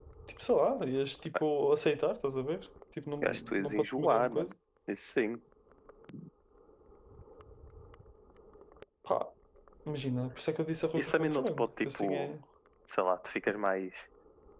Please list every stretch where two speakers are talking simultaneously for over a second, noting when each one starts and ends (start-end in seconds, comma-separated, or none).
3.2-4.5, 10.9-12.3